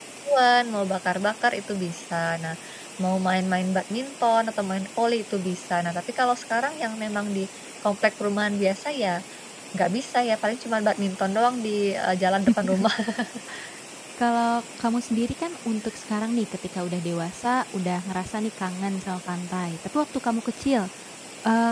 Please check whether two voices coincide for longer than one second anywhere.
No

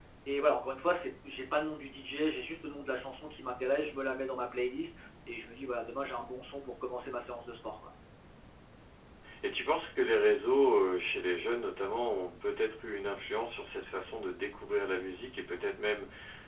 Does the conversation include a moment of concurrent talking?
No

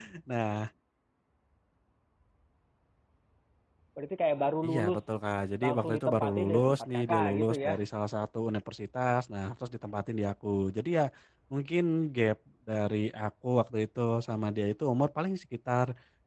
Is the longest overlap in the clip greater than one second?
Yes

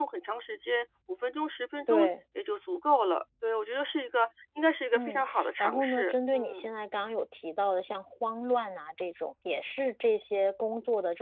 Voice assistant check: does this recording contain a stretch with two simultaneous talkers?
Yes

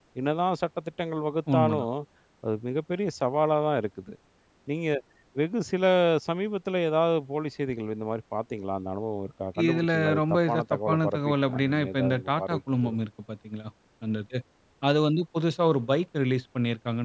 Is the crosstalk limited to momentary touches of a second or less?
No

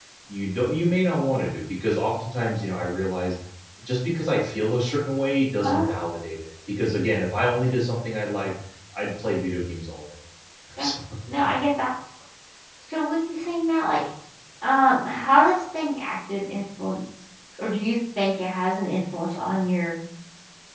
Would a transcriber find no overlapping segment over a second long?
Yes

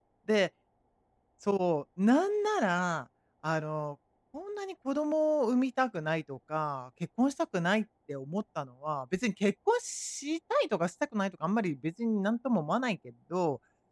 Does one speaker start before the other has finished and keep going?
No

